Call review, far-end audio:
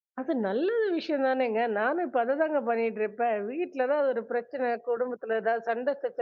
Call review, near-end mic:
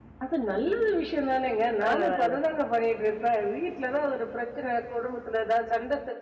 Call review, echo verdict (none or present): present